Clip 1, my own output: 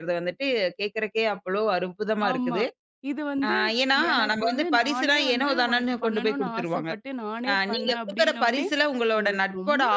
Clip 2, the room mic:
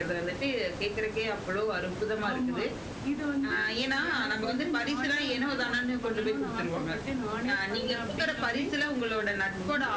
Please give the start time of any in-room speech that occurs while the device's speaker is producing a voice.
none

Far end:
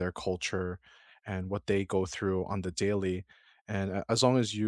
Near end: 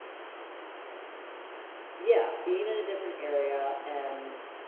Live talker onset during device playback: 2 s

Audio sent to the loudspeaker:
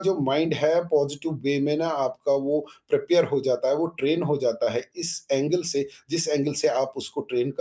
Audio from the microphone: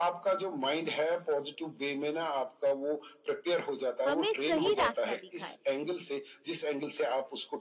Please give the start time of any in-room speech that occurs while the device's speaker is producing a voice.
4 s

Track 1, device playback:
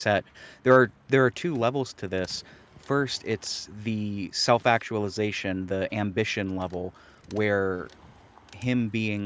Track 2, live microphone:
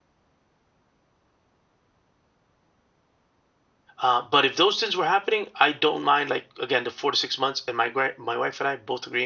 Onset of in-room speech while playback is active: 4 s

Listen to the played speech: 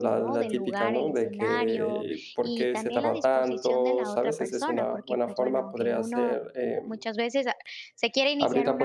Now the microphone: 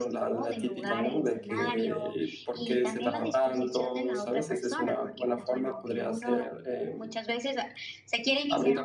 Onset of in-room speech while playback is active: none

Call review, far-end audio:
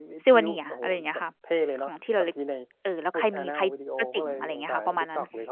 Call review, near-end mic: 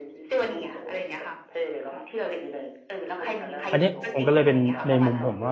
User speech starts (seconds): 4 s

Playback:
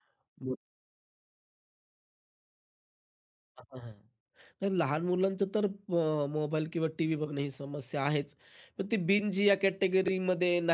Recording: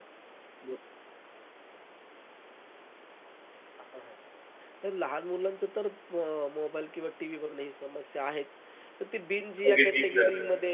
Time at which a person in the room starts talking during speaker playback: 10 s

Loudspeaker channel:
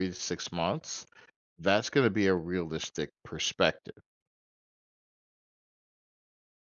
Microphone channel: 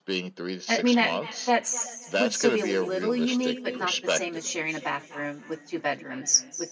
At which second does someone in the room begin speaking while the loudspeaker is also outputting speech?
1 s

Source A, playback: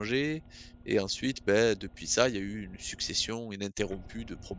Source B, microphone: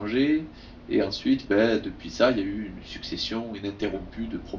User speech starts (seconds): none

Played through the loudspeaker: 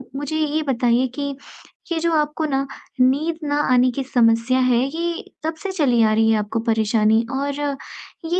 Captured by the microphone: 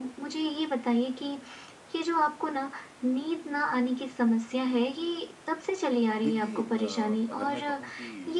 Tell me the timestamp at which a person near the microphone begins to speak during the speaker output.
6 s

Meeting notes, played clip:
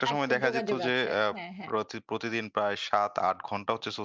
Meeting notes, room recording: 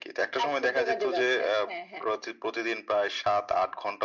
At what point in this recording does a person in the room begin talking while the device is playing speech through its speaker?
none

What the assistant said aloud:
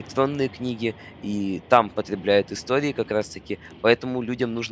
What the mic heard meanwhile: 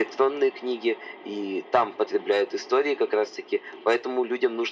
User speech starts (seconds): none

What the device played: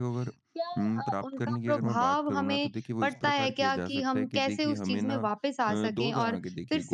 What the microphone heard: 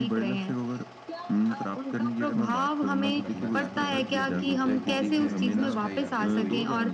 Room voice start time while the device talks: 3 s

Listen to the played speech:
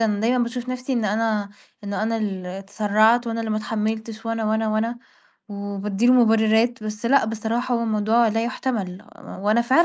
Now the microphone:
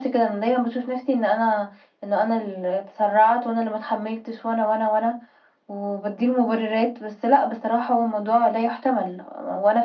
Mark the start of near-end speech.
none

